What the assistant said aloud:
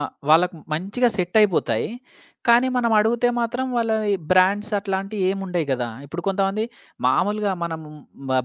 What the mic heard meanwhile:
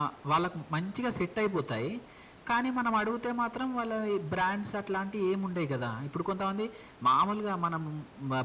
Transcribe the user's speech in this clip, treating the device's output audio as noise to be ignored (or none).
none